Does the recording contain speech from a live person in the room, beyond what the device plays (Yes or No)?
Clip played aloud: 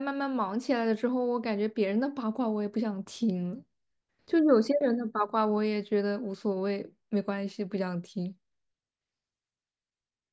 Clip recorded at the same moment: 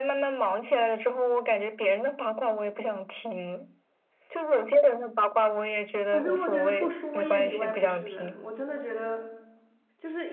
Yes